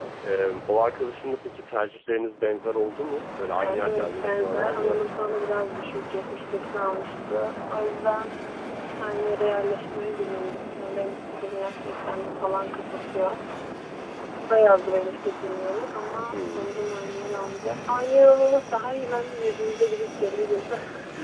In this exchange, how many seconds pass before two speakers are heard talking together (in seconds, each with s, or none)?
3.6 s